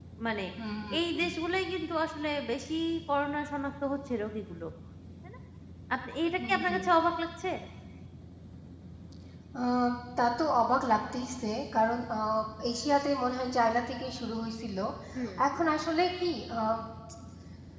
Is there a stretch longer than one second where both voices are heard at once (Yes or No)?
No